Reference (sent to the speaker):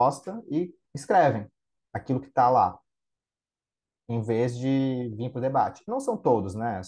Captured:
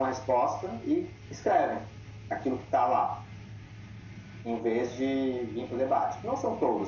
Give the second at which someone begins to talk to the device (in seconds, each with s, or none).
none